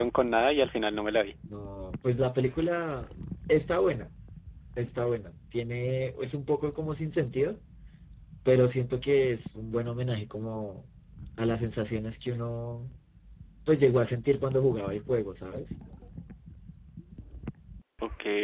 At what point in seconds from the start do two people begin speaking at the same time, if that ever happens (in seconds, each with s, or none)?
none